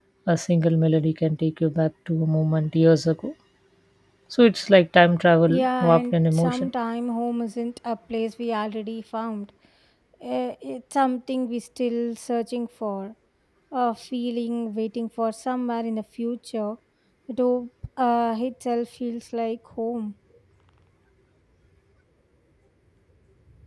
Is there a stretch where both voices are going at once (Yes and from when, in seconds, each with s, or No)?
Yes, from 5.5 s